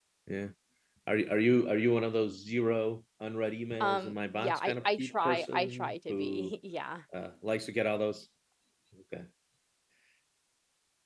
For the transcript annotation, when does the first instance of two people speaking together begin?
3.8 s

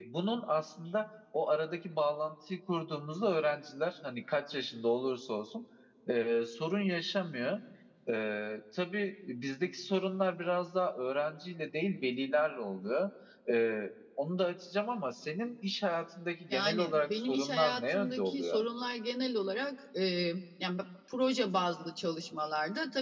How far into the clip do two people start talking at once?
16.5 s

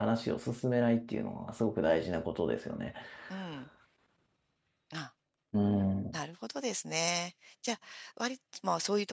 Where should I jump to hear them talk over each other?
none

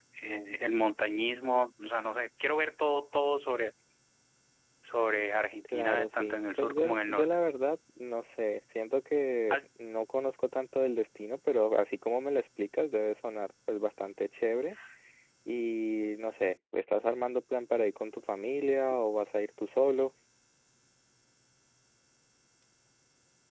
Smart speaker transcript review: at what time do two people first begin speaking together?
5.7 s

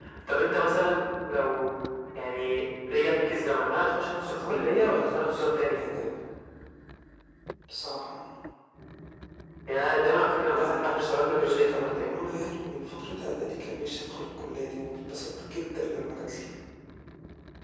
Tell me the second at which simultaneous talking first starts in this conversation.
4.2 s

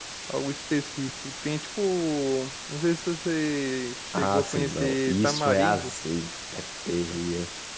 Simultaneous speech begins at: 4.1 s

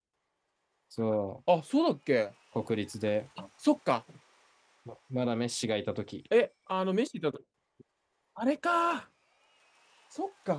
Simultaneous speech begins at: none

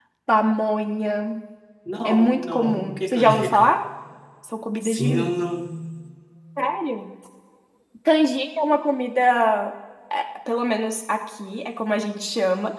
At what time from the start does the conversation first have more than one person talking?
2.0 s

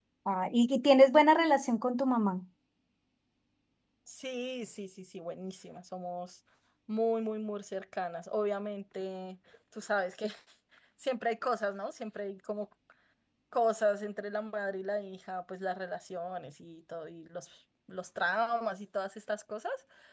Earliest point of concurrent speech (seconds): none

